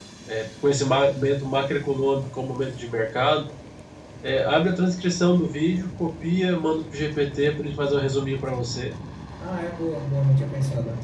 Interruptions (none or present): none